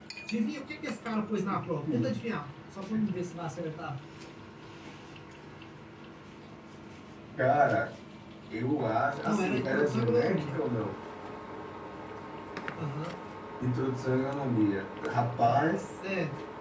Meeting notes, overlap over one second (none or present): present